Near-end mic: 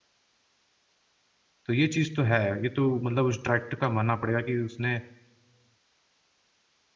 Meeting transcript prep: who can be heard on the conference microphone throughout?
user only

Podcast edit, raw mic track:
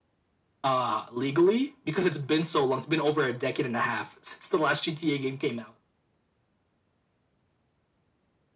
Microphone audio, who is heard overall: echo only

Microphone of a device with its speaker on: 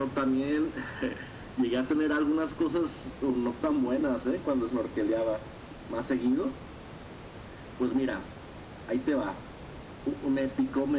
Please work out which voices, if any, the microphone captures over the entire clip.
echo only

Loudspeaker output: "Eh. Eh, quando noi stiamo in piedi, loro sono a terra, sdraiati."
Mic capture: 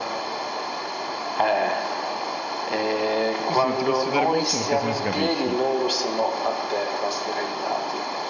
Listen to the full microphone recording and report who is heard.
both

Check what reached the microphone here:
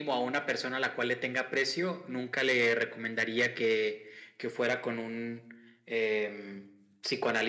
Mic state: echo only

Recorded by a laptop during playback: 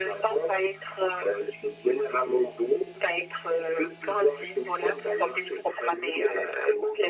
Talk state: echo only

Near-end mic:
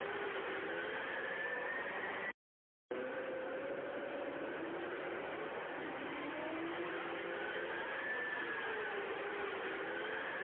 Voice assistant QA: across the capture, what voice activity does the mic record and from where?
neither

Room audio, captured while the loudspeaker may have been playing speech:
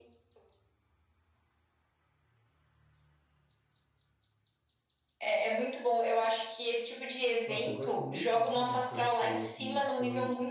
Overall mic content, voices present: both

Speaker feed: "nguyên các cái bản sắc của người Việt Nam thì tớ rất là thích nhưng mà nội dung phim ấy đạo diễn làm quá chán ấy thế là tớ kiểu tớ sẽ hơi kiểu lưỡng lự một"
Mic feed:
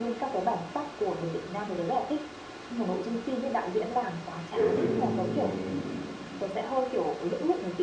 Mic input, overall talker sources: both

